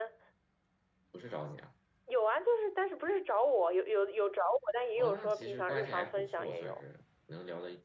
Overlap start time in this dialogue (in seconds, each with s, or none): 5.0 s